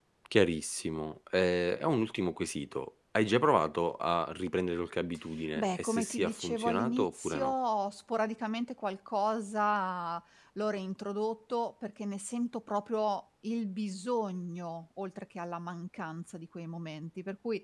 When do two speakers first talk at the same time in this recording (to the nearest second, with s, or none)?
6 s